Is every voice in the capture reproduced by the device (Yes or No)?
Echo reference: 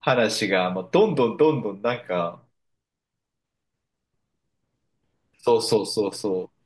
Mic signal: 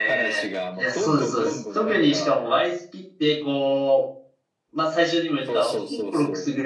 No